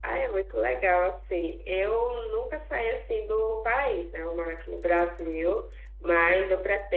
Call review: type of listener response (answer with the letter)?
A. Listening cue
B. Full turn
A